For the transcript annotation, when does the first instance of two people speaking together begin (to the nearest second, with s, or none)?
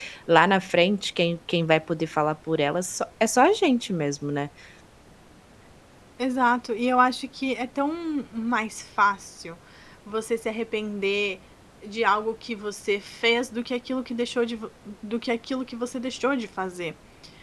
none